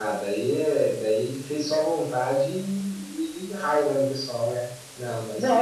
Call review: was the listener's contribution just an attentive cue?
No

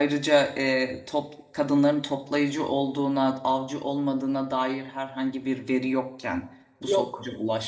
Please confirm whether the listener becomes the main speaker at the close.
No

